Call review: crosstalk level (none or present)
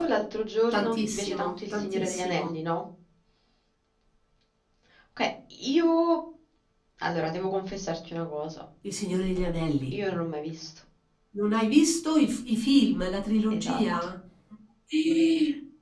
present